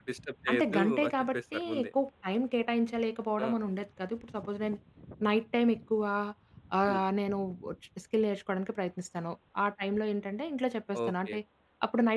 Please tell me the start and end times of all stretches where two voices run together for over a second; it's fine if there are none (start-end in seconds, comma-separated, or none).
0.5-1.9